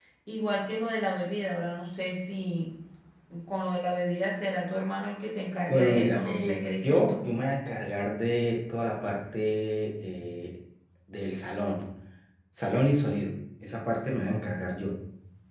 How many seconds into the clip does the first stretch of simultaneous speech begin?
6 s

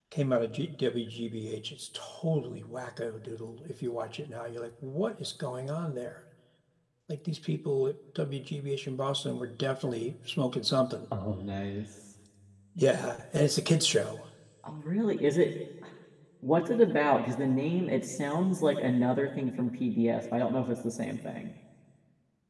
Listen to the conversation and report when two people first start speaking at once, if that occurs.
none

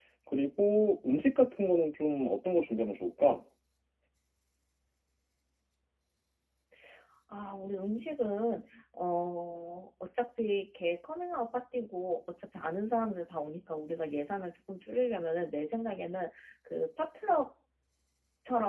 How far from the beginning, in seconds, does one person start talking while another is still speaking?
none

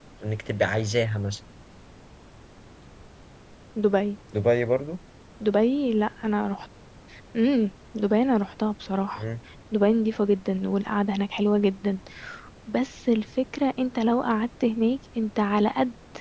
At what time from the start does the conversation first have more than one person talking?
none

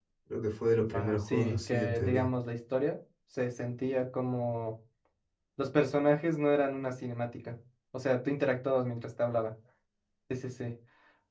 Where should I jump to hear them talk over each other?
1 s

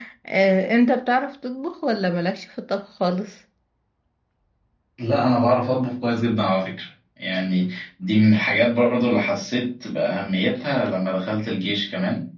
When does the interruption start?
none

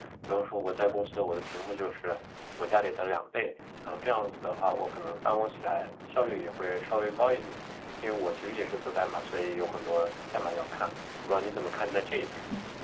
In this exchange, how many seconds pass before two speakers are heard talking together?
none

